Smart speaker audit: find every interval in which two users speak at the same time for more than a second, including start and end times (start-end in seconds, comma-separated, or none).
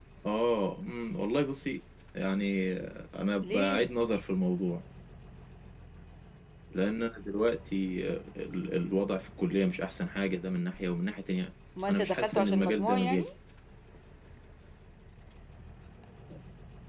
11.9-13.2